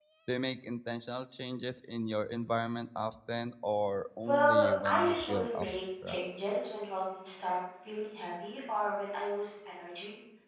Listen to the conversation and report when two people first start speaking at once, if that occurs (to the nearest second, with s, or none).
4 s